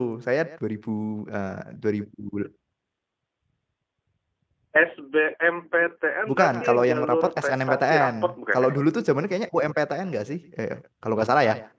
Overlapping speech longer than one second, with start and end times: 6.3-8.2

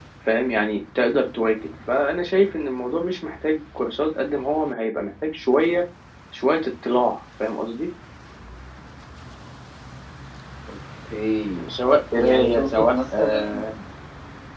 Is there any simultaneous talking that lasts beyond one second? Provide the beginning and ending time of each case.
12.2-13.7

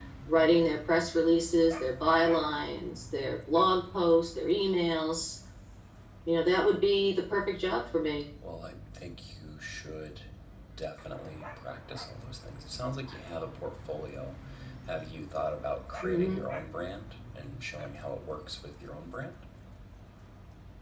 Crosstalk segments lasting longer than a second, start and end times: none

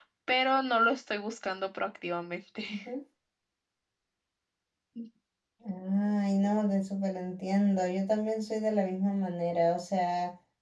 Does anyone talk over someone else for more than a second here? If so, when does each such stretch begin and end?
none

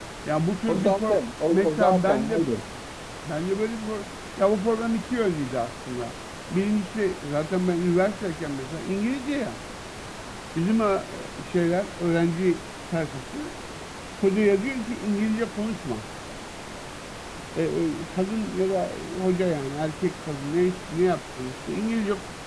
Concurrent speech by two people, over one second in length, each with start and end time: 0.7-2.4

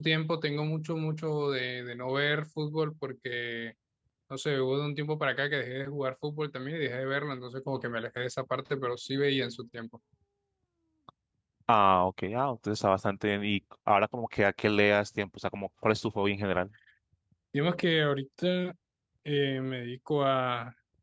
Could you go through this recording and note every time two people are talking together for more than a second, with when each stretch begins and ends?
none

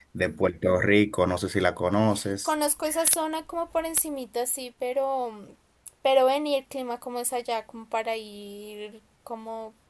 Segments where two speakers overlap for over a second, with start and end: none

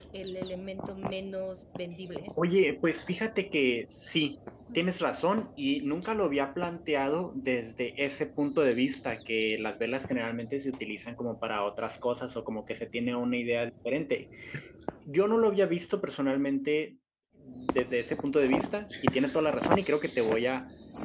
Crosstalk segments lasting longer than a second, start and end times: none

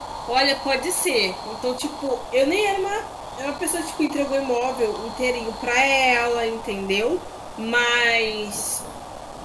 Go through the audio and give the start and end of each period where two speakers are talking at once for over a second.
none

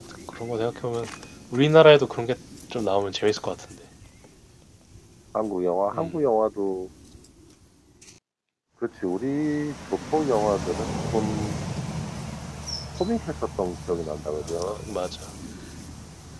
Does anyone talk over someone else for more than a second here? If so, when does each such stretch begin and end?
none

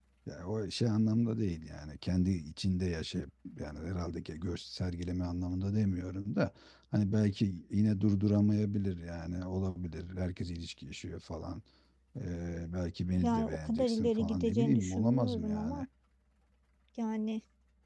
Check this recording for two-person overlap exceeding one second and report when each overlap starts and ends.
13.2-15.8

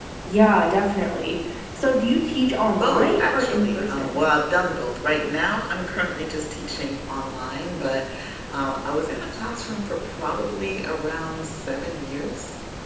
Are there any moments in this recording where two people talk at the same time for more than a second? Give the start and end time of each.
2.8-4.2

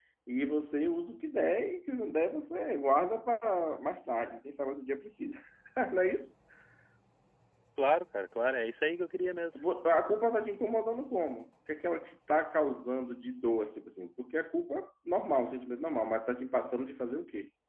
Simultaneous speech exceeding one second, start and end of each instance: none

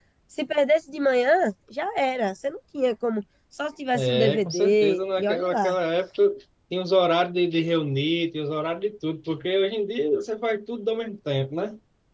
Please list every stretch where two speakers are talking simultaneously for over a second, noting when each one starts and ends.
3.9-5.8

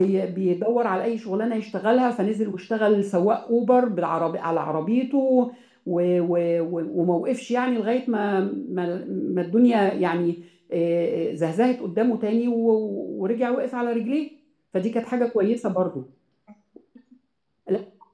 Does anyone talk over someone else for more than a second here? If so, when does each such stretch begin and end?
none

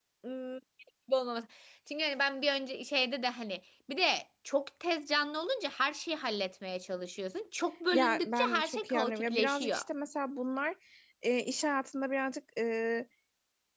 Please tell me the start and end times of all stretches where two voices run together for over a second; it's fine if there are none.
7.9-9.8

